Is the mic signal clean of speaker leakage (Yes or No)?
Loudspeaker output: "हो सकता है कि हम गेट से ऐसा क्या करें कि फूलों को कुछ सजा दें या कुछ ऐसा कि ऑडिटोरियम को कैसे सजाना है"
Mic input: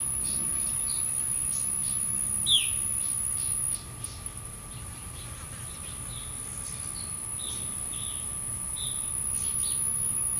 Yes